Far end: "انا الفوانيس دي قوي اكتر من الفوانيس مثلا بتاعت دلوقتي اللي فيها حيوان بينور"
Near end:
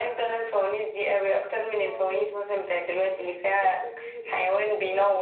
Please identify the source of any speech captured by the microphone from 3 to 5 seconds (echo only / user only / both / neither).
both